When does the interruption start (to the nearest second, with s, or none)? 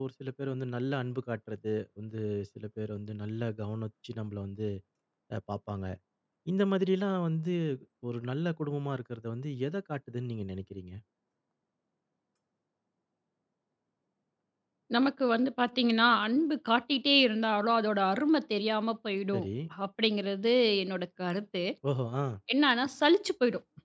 none